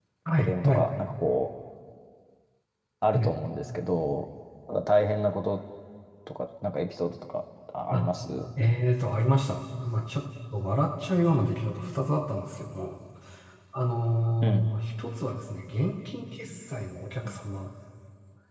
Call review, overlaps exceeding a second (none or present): none